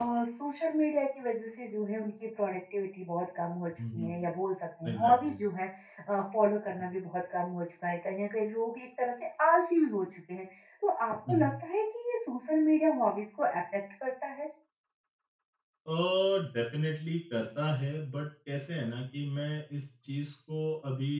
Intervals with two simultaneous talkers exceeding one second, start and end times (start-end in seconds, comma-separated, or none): none